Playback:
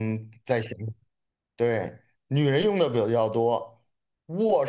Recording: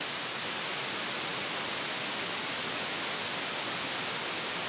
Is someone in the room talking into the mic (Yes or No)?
No